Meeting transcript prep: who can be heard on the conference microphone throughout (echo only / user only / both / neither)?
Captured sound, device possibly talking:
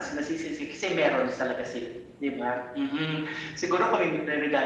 echo only